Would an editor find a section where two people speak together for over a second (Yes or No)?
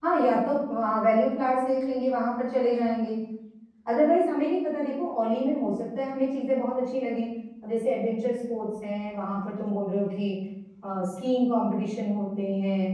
No